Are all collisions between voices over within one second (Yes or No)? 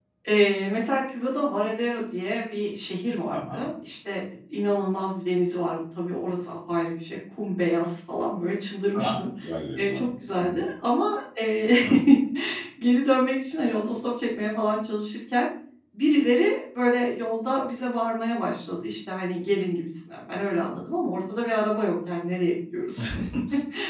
Yes